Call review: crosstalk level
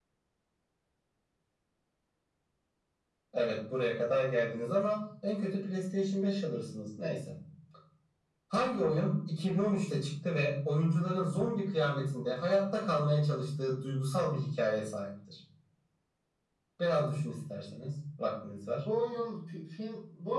none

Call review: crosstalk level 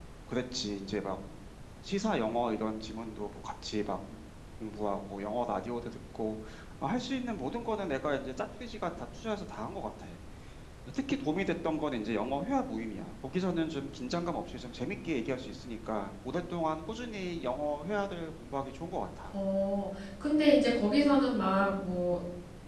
none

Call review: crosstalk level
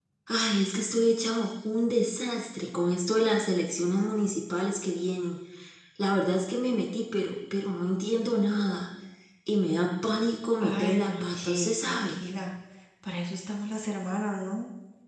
present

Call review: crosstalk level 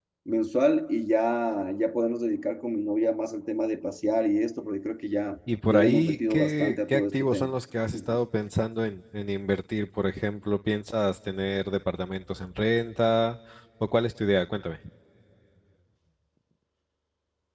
present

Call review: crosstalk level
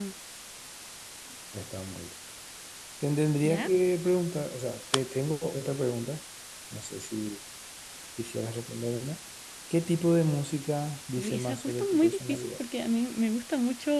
present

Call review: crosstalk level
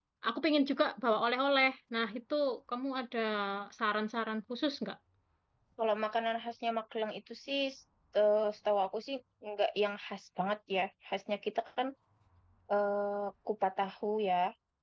none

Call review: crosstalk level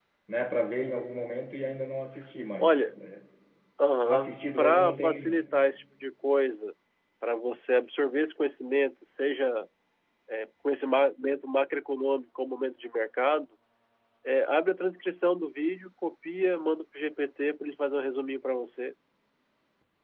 present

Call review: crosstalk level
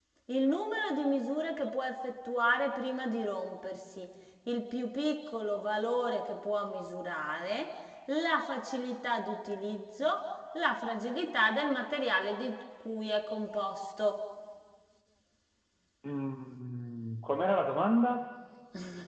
none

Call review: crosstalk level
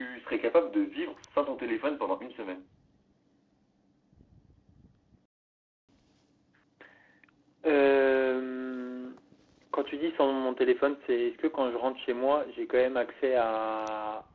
none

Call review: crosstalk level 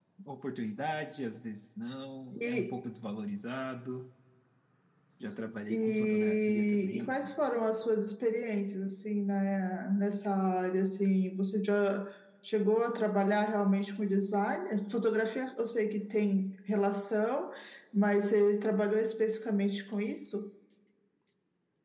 present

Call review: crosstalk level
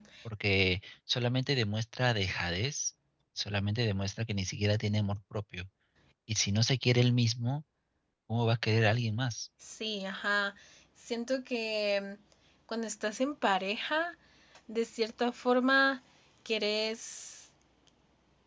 none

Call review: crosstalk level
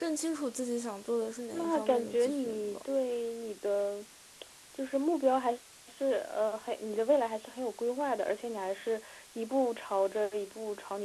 present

